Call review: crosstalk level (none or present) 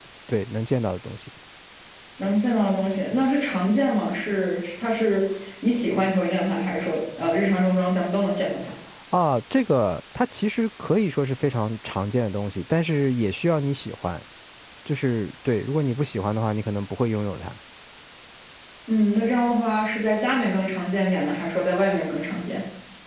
none